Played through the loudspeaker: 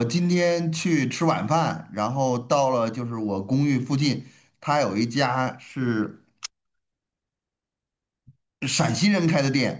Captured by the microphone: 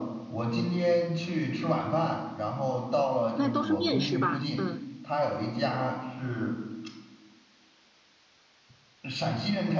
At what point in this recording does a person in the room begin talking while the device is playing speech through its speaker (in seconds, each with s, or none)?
3.3 s